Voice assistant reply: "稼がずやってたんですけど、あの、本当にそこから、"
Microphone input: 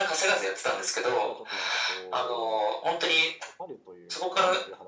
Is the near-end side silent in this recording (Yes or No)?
No